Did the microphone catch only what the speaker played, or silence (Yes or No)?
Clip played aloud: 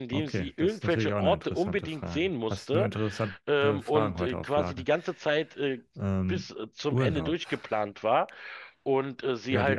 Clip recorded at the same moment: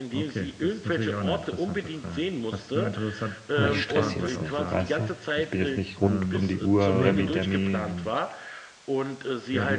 No